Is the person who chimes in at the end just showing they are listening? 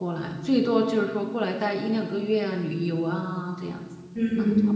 No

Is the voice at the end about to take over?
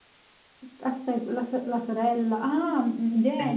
Yes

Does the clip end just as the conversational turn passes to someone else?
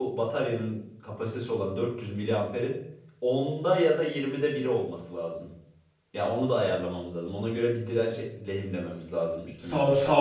Yes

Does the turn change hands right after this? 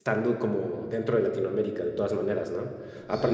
No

